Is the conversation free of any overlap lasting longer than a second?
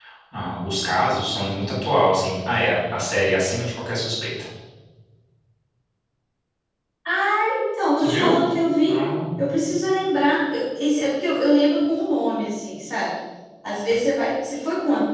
Yes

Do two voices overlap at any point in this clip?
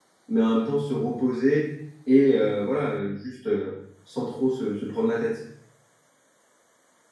No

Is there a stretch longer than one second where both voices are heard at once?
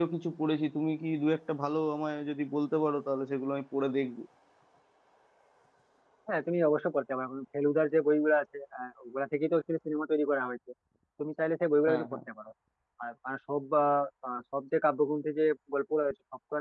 No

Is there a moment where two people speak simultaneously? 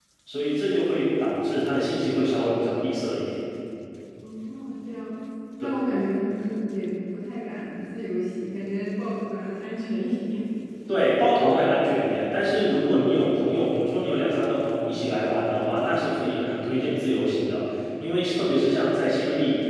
No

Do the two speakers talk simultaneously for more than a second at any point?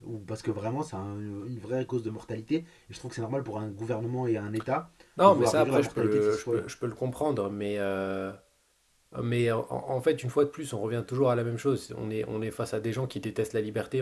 Yes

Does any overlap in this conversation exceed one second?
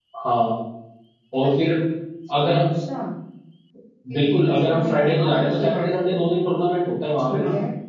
Yes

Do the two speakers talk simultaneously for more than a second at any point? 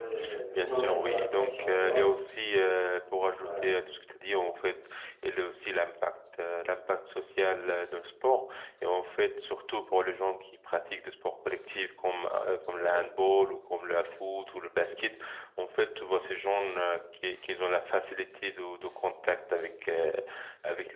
Yes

